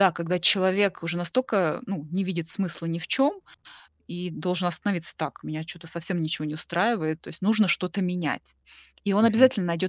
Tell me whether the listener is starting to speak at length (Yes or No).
No